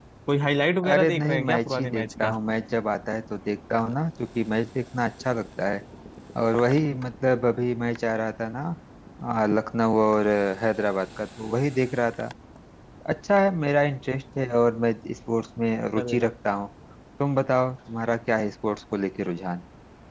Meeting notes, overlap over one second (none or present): present